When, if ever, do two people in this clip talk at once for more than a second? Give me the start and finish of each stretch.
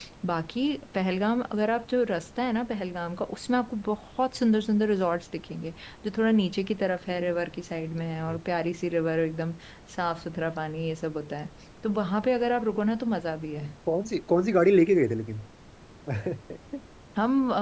none

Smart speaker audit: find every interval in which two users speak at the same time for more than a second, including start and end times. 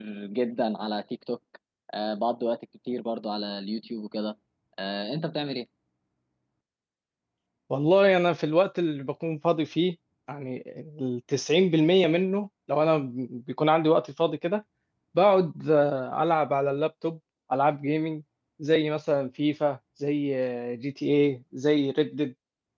none

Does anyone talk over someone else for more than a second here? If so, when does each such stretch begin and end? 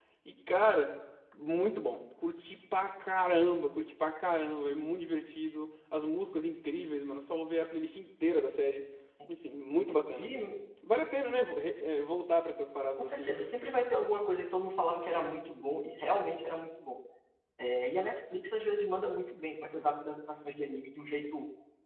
none

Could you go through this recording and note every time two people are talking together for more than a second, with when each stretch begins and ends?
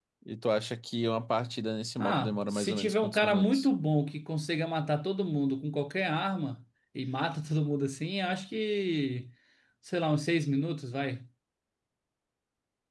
2.0-3.7

